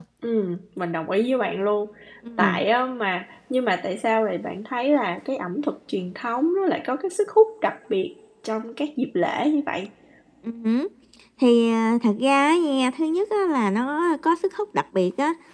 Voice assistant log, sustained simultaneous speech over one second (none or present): none